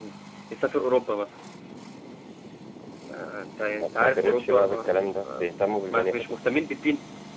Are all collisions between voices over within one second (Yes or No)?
No